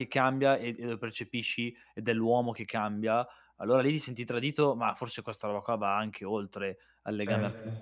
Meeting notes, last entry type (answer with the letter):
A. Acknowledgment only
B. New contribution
B